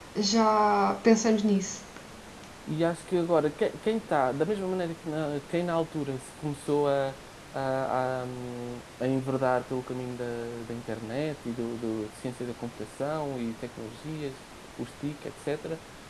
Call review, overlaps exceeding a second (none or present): none